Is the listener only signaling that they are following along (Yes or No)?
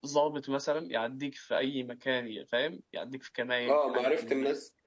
No